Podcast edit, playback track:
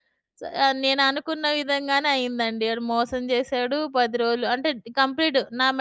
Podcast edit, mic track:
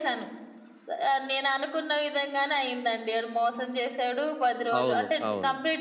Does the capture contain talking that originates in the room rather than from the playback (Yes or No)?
Yes